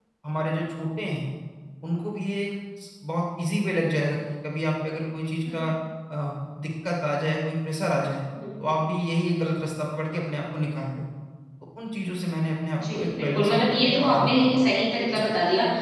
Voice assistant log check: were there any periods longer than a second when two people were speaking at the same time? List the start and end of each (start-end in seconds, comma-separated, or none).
12.9-14.6